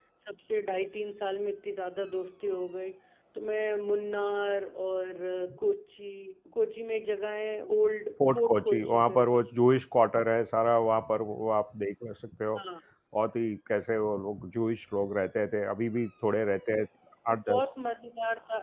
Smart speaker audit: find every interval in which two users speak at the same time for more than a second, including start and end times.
8.2-9.4

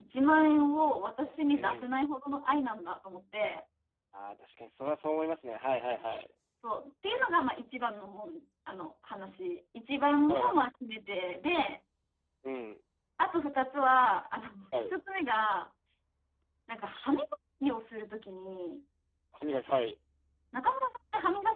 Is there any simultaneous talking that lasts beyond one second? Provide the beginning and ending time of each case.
none

